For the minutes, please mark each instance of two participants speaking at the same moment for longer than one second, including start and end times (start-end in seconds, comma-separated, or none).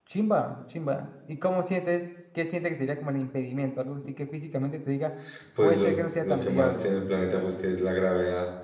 5.6-6.9